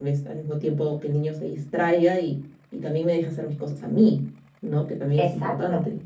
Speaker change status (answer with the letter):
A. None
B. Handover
B